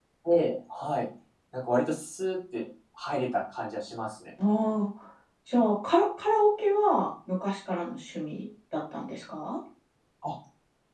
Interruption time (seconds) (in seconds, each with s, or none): none